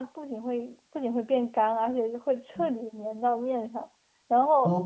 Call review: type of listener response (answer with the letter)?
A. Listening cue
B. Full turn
A